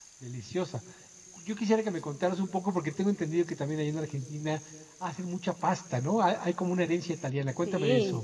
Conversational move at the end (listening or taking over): taking over